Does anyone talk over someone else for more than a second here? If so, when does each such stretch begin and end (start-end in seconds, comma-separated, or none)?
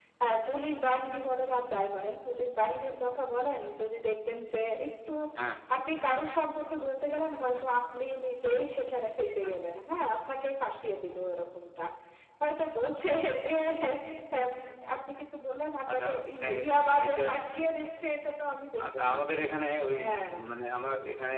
15.9-17.2